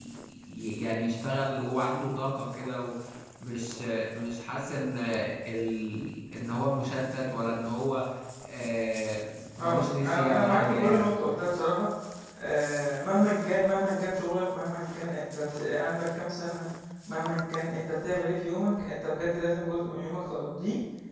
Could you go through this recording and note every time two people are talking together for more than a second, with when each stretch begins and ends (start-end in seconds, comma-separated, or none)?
9.6-11.1